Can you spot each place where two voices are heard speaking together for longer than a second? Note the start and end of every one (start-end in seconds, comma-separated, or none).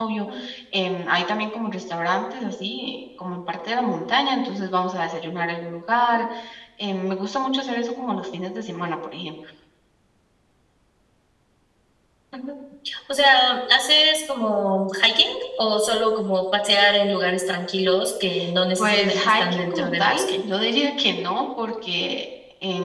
18.8-20.4